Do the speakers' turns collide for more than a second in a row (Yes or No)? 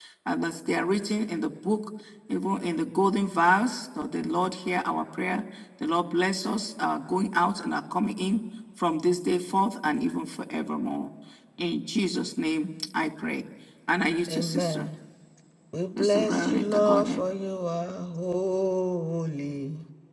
Yes